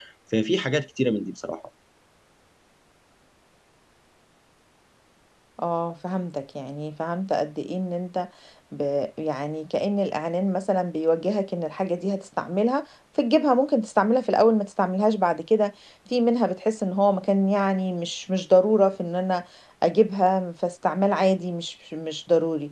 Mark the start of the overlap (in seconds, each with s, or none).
none